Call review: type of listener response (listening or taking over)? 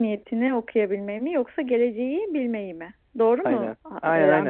taking over